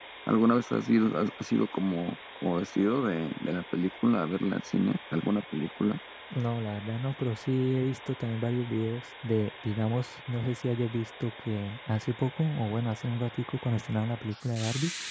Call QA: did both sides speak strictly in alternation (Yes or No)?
Yes